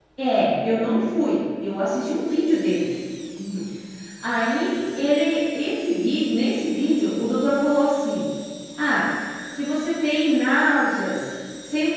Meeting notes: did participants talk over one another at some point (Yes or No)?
No